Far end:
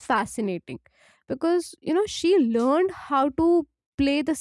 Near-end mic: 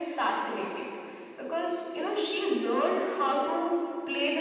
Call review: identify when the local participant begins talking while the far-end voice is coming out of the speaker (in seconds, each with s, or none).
none